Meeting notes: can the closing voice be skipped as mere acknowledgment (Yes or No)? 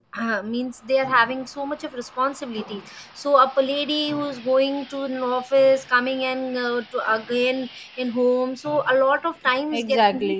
No